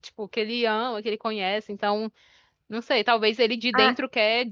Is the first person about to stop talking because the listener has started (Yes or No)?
No